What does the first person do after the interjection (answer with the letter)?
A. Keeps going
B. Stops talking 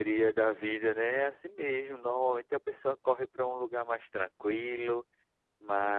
A